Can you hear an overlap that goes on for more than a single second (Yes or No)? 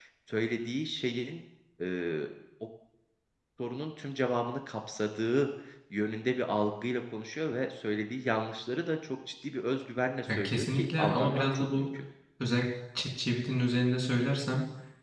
Yes